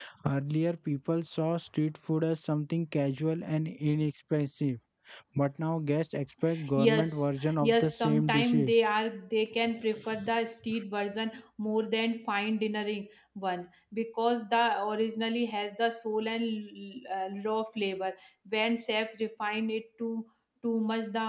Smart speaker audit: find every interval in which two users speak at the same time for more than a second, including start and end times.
6.8-8.7

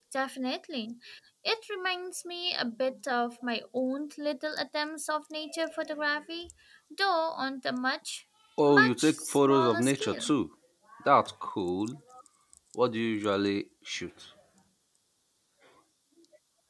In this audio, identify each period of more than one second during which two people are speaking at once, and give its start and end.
8.6-10.3

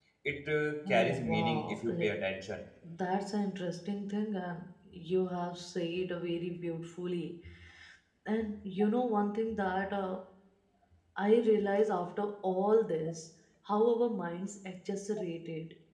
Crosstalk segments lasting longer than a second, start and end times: 0.9-2.1

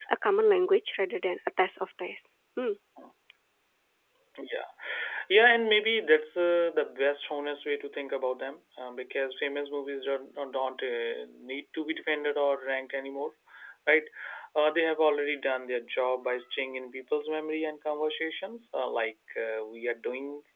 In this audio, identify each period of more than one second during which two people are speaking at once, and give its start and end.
none

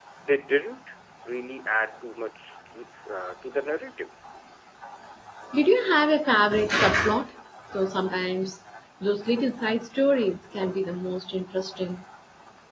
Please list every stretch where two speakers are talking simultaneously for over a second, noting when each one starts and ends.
none

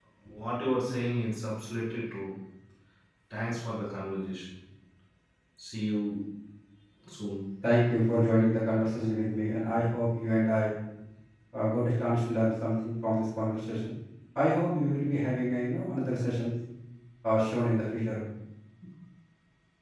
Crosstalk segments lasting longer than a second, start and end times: none

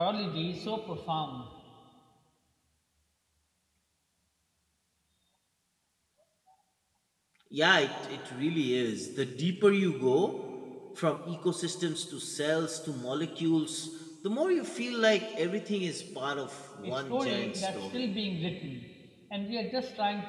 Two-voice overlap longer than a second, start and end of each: 16.8-18.1

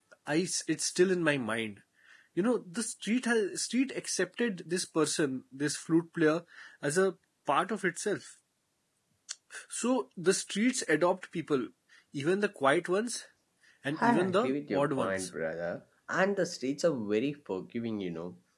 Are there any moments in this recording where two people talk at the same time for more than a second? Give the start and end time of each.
14.0-15.3

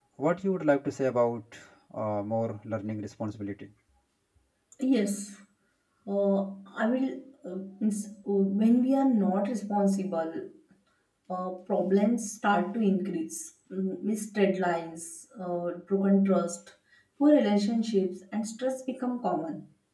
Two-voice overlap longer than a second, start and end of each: none

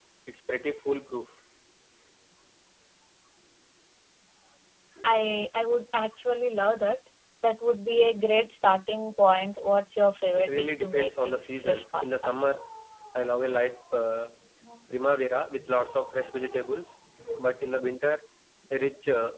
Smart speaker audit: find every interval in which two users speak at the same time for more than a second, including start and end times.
10.4-12.3

